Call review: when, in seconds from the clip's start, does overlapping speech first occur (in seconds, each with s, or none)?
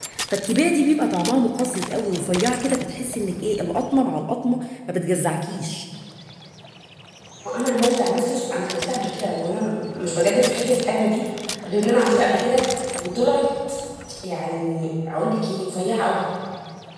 none